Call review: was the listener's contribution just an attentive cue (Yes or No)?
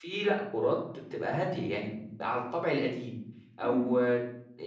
Yes